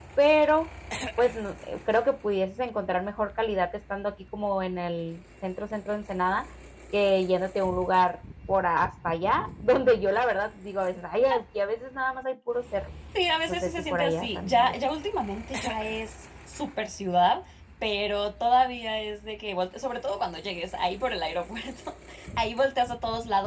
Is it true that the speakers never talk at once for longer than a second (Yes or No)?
No